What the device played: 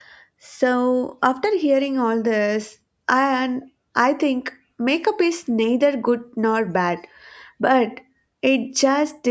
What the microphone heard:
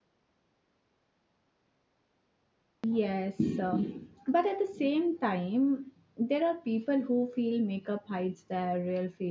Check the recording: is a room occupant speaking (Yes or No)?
Yes